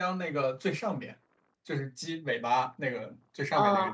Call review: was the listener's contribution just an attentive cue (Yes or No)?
Yes